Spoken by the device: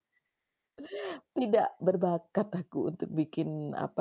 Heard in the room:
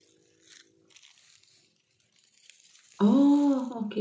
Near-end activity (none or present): present